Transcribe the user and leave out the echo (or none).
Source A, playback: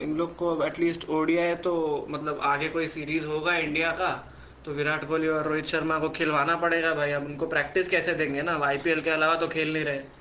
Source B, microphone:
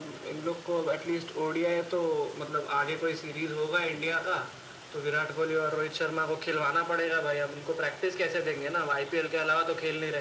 none